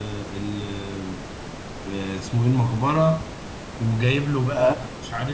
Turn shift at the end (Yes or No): No